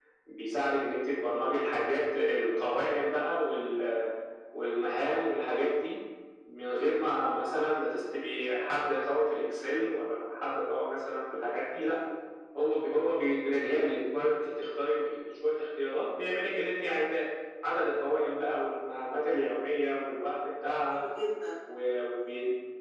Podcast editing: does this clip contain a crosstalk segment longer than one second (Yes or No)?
No